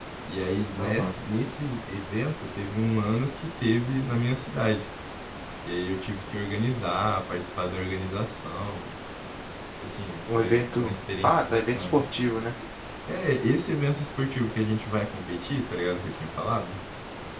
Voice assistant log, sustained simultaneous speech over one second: present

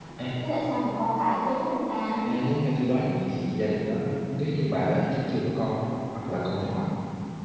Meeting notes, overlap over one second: none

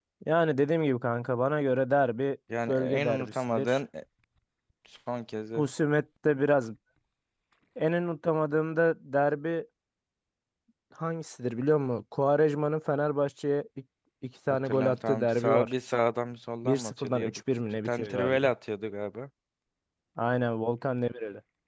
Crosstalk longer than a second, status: present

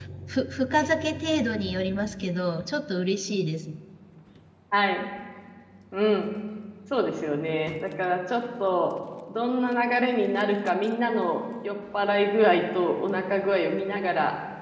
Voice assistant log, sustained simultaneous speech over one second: none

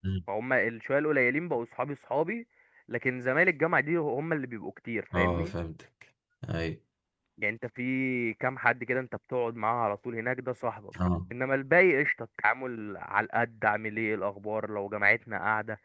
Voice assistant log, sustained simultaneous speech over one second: none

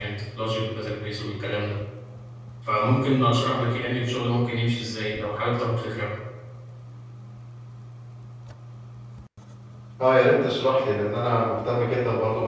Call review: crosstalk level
none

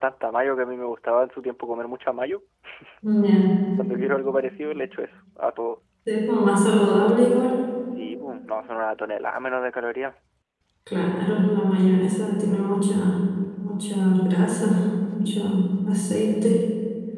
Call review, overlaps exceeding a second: none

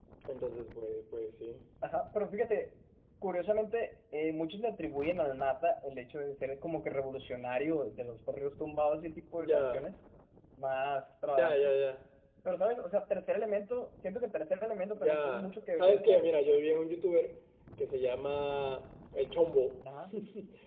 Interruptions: present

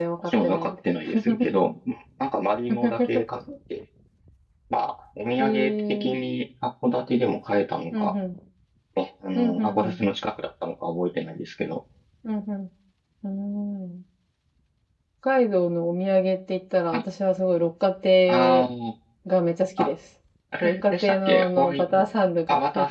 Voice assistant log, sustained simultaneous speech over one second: present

